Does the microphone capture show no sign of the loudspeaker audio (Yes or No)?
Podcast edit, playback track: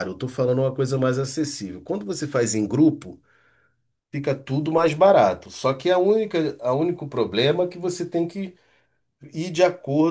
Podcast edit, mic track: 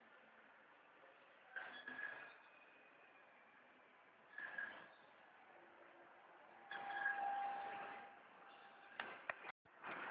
Yes